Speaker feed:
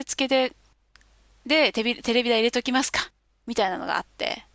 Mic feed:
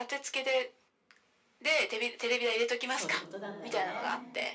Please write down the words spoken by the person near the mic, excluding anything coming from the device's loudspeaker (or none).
そういうことなんだよね。